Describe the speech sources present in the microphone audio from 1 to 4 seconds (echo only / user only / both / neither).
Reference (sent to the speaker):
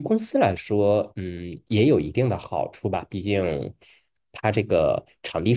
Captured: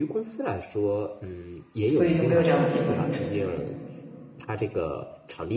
both